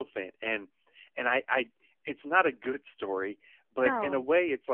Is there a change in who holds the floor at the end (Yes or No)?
No